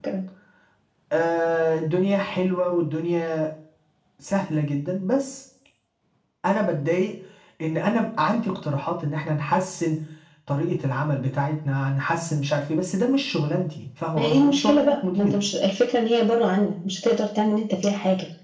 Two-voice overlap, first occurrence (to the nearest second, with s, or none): 14 s